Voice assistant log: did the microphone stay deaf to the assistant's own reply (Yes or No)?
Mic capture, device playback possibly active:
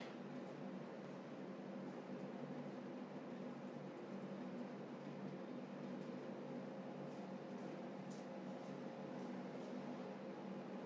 Yes